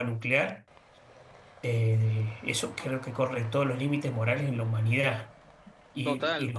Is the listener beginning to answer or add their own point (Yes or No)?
No